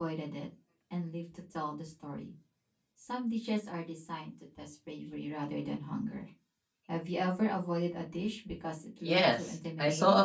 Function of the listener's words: taking over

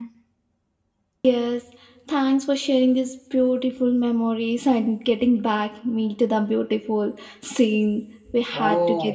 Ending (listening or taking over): taking over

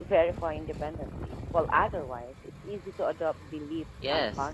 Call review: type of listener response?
taking over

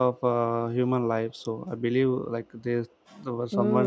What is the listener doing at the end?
taking over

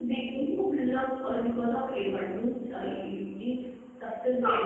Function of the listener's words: listening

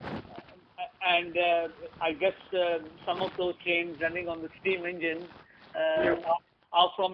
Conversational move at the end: listening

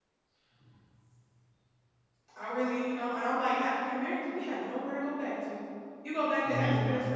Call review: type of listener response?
listening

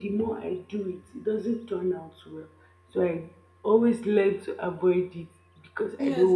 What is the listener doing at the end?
taking over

